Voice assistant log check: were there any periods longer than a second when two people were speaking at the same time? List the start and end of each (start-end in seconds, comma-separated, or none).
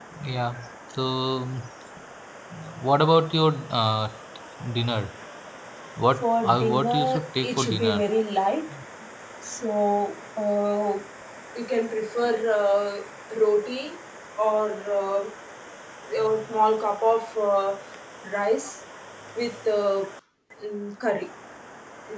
6.2-8.0